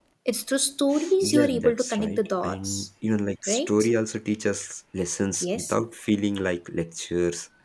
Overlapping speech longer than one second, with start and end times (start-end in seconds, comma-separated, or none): 1.2-2.9